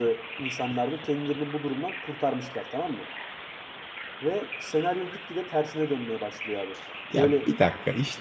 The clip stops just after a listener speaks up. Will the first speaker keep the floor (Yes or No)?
No